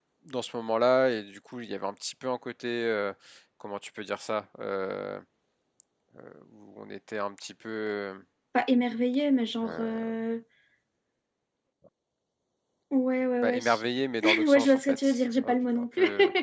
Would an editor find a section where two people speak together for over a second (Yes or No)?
Yes